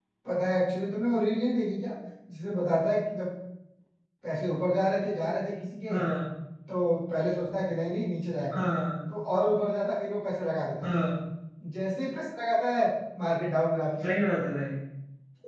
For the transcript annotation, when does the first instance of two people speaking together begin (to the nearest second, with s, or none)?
none